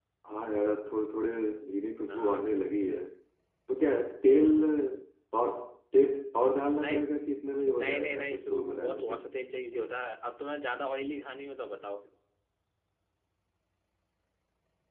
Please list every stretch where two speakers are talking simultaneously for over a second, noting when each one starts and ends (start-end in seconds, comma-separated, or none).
7.8-9.2